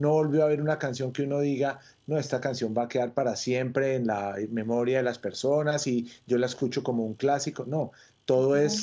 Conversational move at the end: listening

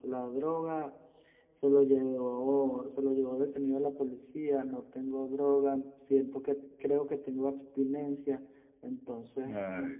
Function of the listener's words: taking over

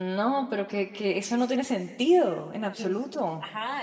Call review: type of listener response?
taking over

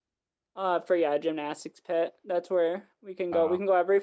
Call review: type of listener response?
listening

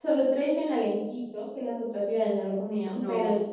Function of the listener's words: listening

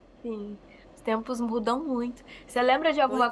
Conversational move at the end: listening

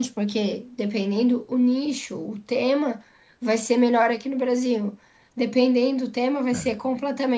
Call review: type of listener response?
listening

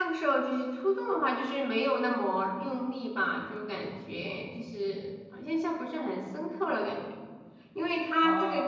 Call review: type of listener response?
listening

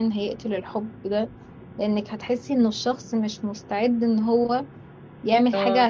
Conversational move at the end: listening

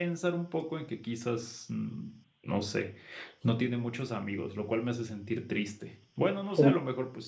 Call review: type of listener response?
listening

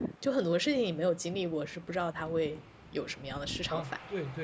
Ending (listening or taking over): taking over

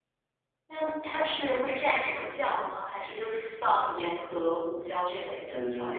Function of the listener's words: taking over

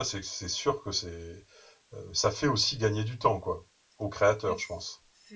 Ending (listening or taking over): taking over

